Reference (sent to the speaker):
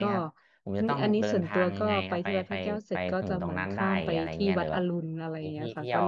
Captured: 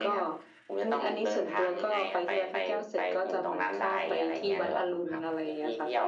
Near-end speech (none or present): present